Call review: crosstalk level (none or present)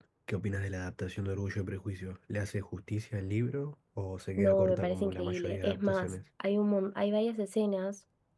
present